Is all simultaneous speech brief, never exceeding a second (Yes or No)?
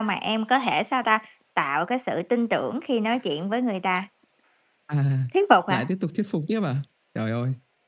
Yes